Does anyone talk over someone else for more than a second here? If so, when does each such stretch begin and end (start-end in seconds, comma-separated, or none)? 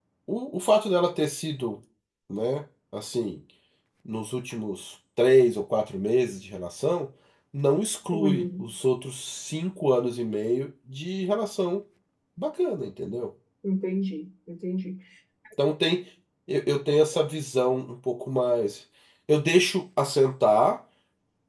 none